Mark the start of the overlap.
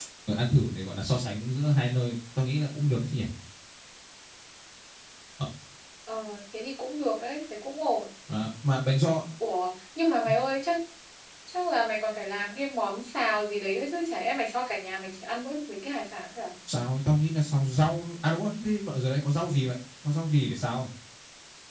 none

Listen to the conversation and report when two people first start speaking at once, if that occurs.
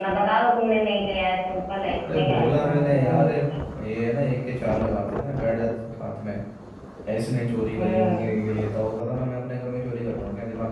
2.1 s

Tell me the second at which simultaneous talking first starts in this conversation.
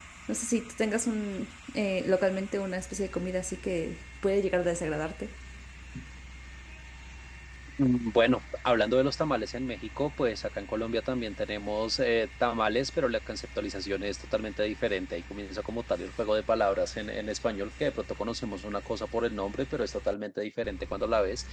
none

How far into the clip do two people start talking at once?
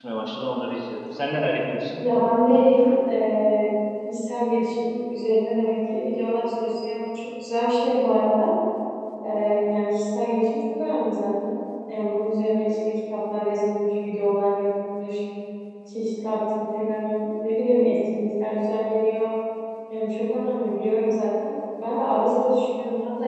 none

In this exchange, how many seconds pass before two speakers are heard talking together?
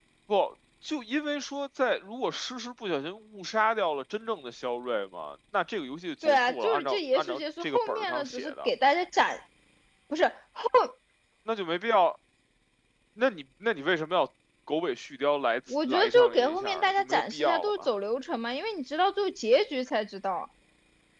6.2 s

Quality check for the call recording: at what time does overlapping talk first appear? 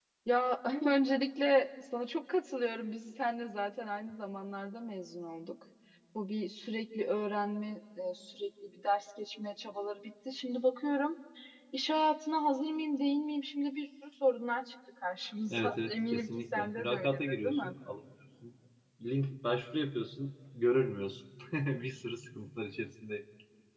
15.5 s

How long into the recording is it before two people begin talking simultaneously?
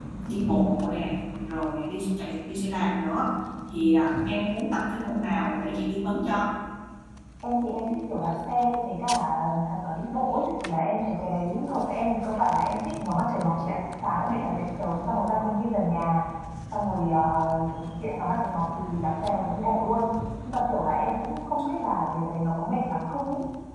none

